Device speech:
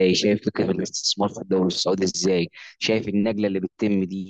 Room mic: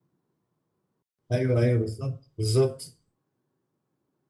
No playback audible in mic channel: Yes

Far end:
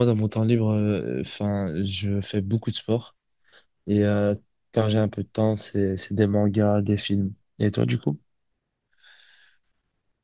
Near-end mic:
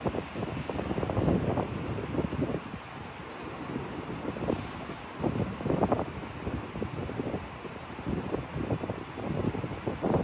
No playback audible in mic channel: Yes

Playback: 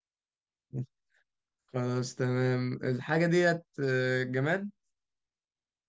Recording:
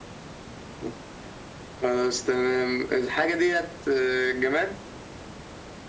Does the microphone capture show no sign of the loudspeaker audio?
No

